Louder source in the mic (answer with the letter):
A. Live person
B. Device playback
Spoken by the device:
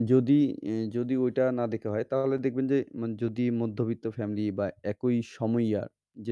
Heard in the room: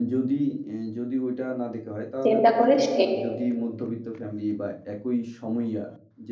A